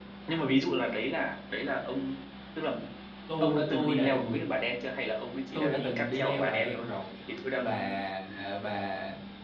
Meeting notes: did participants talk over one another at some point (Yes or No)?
Yes